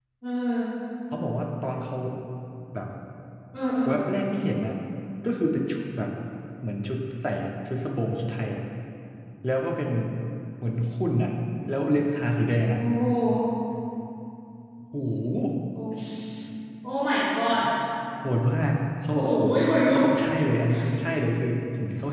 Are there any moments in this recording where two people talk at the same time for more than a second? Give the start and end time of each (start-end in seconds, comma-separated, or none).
none